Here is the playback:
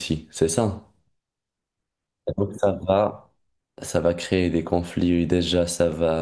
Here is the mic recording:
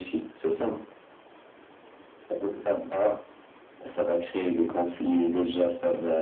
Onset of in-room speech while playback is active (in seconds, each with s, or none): none